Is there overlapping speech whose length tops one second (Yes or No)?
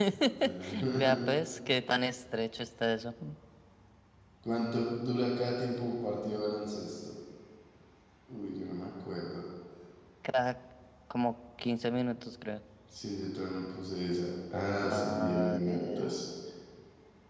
Yes